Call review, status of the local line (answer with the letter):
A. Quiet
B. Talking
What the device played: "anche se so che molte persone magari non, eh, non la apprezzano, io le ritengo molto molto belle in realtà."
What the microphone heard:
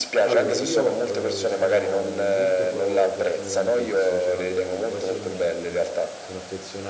B